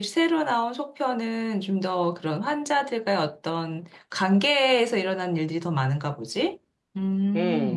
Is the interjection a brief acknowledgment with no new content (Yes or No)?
No